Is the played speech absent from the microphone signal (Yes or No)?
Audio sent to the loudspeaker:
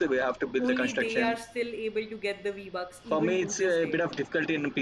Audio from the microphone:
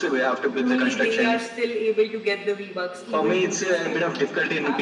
No